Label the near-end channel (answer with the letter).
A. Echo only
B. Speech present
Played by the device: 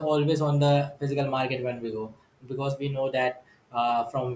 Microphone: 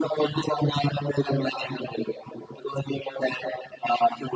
A